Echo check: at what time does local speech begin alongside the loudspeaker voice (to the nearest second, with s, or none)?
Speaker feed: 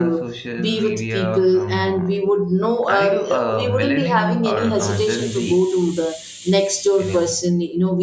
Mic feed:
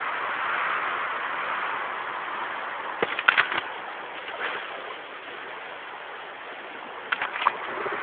none